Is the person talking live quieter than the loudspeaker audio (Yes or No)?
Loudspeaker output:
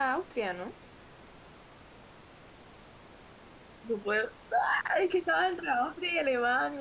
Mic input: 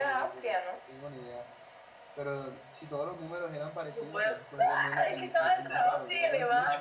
Yes